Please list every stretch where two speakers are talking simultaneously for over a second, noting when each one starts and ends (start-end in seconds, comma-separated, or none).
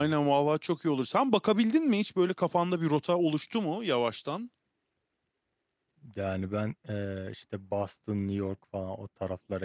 none